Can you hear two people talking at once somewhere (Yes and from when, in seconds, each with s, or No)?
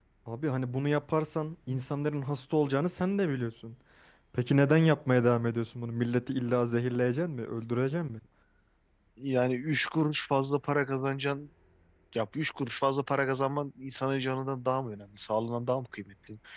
No